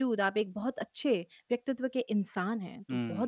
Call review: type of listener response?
taking over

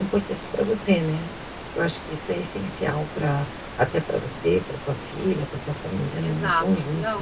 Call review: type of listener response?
taking over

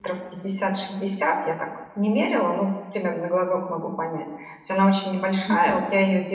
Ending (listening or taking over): listening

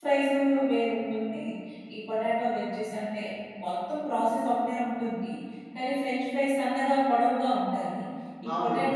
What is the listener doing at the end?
listening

